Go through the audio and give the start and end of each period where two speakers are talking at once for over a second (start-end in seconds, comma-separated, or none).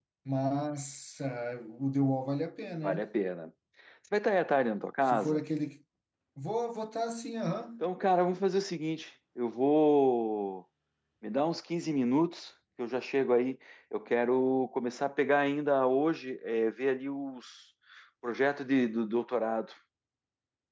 none